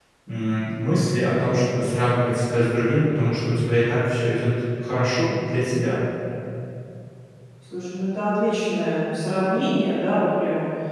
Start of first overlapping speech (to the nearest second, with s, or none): none